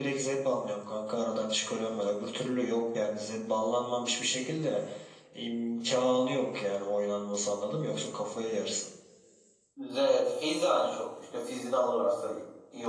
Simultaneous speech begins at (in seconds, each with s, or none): none